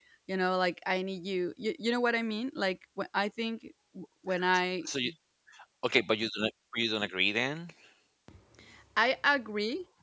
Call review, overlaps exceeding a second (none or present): none